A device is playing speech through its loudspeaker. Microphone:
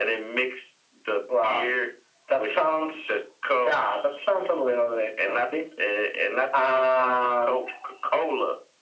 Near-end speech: none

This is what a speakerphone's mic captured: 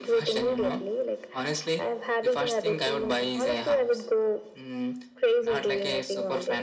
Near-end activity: none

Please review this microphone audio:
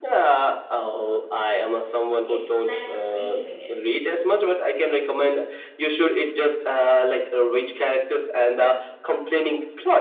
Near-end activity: present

